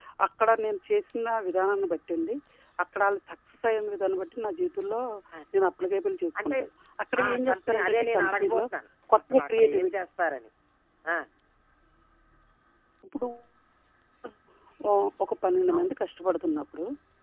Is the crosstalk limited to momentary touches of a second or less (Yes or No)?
No